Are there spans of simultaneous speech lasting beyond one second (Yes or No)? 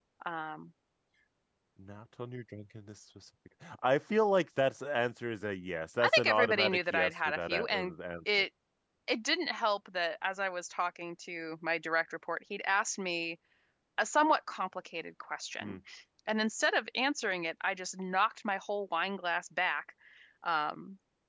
Yes